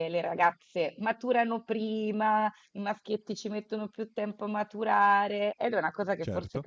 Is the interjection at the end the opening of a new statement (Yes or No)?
No